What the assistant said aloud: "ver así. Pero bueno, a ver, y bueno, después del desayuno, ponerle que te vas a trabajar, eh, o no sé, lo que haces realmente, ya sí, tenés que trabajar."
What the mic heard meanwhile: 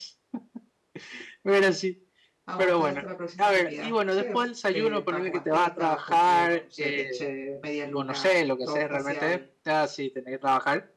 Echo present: Yes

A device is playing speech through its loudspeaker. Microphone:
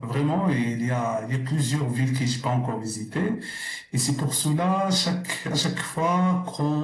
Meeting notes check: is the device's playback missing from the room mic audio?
No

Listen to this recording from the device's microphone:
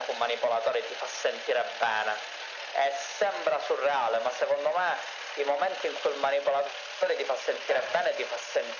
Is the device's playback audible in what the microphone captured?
Yes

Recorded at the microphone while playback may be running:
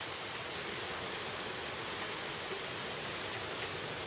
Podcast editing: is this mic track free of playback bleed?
Yes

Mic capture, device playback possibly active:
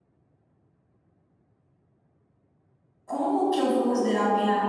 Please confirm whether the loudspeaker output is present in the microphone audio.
No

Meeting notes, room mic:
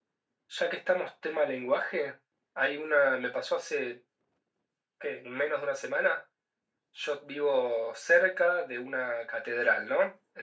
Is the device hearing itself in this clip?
Yes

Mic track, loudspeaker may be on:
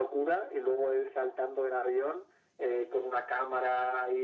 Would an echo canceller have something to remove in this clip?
Yes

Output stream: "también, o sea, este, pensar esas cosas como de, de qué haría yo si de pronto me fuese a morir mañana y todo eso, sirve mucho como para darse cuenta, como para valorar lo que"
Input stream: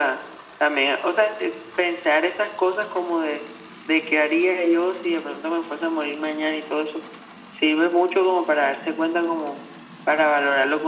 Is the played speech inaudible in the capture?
No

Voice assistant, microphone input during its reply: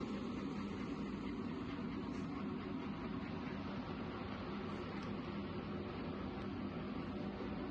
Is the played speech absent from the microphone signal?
Yes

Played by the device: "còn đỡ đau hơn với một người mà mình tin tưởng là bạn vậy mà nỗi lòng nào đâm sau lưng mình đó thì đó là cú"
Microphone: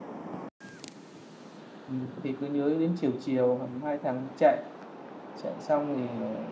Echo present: No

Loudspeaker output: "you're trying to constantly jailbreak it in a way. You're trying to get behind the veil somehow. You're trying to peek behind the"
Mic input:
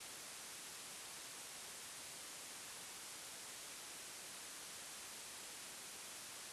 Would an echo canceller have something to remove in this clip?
No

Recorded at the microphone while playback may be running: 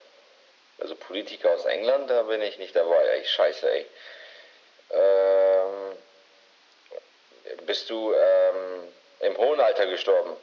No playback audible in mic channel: No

